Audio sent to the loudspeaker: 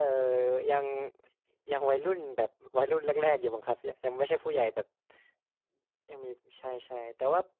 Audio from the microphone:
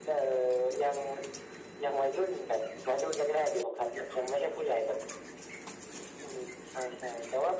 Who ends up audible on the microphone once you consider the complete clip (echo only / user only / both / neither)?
echo only